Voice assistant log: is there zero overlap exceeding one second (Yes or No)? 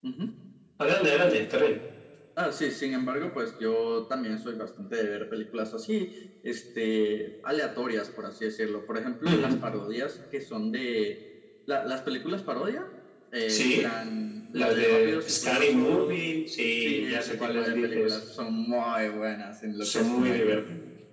No